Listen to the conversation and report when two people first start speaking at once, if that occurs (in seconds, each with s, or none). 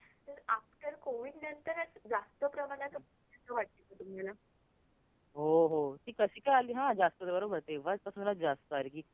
none